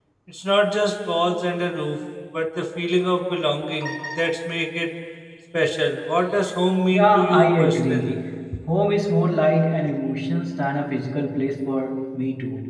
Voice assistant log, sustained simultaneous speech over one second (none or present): present